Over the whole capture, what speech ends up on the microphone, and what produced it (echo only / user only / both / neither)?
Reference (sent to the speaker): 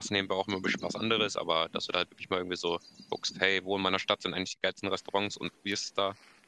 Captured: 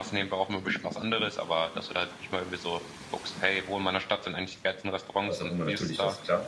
both